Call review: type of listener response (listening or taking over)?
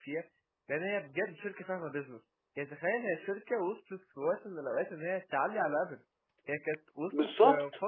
listening